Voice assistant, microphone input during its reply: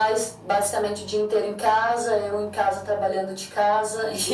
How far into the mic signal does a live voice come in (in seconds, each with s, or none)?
none